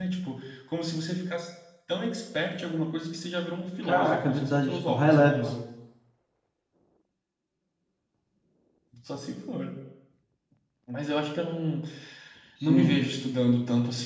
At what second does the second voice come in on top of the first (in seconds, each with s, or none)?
3.8 s